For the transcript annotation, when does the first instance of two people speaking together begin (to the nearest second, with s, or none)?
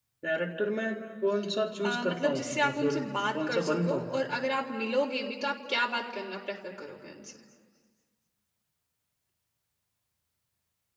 2 s